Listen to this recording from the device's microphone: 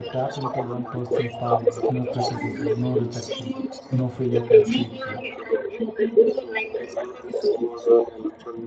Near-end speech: present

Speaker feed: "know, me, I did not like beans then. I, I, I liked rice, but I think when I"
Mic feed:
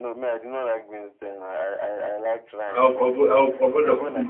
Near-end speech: present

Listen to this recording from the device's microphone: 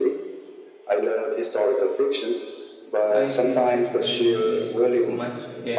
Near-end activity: present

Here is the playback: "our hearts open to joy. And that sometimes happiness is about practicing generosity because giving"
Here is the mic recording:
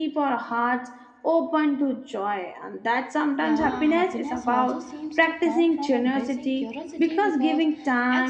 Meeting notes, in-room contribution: present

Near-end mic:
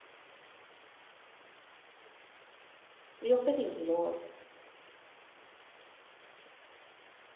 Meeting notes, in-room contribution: present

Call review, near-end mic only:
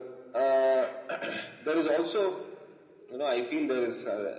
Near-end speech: none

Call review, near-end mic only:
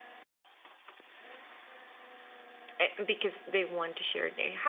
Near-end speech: present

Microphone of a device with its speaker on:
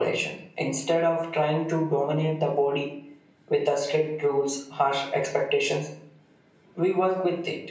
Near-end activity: none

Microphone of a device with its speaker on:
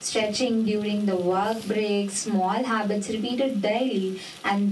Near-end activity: none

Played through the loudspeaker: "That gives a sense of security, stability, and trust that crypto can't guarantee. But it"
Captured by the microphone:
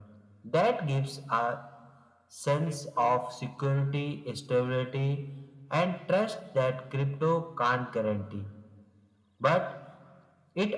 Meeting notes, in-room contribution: present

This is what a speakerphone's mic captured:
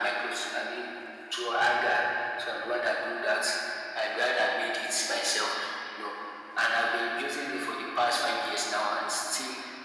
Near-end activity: none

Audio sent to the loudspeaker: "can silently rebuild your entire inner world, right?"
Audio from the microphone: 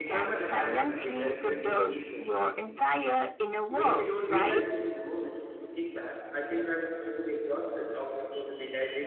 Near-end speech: present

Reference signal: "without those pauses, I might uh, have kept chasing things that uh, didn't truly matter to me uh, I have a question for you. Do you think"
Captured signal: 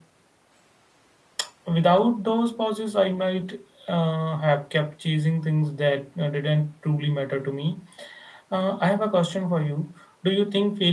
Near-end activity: none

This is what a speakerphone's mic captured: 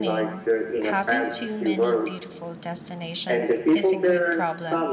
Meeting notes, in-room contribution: present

